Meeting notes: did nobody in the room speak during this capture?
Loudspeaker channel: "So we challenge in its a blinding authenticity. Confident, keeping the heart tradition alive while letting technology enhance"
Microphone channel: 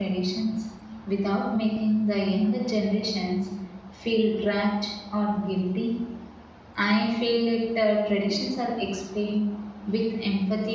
No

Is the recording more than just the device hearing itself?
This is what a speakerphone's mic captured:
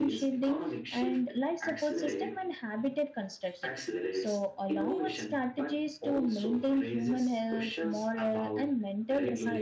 Yes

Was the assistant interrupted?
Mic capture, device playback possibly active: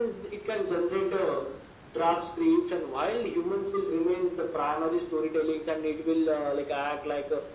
No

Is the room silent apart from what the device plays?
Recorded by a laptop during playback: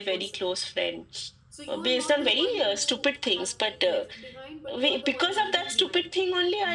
No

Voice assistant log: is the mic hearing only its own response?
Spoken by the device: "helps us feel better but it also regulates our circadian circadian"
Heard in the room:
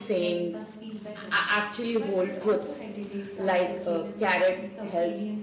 No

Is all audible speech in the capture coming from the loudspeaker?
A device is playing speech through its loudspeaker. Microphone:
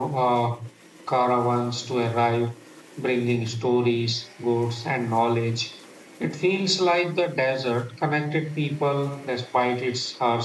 Yes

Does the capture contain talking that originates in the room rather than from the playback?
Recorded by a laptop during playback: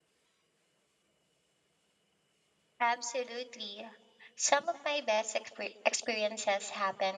Yes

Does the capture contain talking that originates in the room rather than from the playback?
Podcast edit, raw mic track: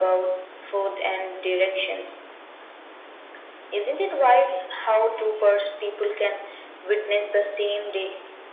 No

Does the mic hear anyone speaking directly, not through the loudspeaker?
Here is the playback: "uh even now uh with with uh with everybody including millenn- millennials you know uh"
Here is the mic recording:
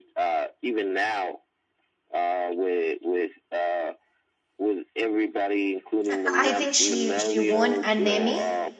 Yes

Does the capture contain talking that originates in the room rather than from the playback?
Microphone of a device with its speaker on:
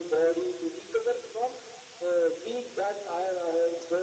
No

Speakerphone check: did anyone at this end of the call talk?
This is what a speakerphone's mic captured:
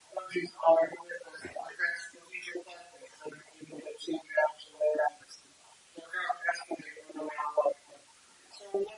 No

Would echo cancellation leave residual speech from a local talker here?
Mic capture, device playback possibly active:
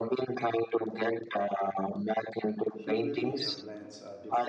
Yes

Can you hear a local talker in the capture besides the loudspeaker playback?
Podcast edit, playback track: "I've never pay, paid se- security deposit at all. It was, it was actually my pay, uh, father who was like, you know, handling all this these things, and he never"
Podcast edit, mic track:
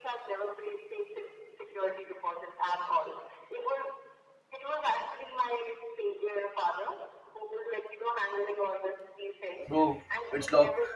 Yes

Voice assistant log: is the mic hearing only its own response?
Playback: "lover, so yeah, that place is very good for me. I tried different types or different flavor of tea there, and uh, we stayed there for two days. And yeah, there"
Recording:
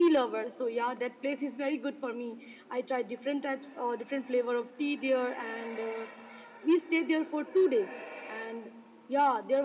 Yes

